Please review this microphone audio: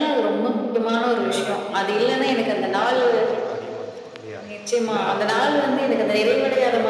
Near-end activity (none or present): present